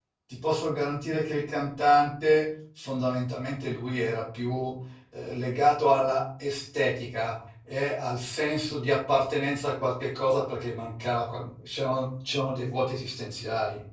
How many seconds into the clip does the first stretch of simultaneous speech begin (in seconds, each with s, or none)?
none